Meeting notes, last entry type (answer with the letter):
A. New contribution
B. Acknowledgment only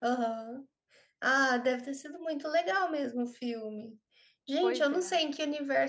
B